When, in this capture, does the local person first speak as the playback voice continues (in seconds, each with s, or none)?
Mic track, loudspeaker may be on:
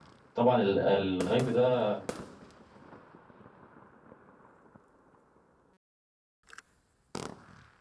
0.3 s